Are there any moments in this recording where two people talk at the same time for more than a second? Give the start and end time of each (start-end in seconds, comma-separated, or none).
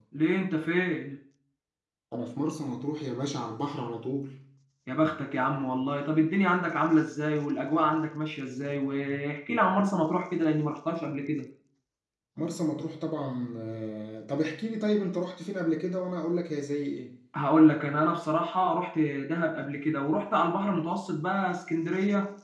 none